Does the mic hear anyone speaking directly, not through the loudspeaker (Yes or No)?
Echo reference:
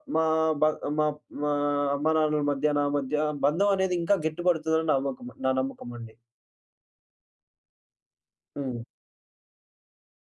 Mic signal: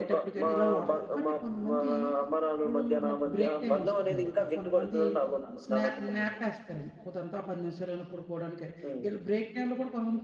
Yes